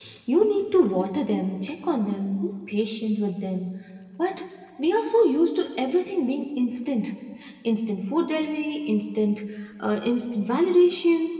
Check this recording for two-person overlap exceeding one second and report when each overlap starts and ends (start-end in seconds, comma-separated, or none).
none